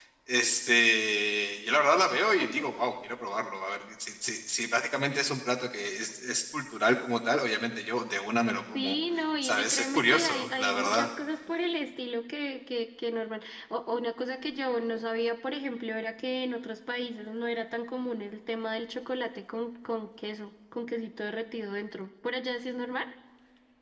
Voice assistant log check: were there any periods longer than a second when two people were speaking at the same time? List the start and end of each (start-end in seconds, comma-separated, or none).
9.4-11.1